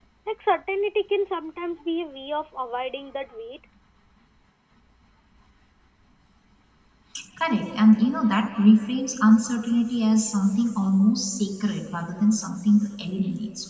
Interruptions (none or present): none